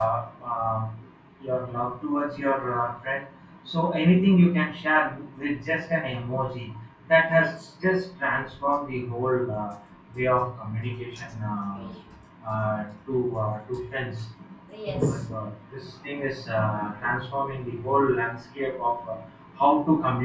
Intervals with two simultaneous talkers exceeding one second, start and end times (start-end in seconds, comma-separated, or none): none